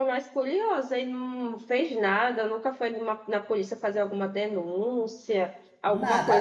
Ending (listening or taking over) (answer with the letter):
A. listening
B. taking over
A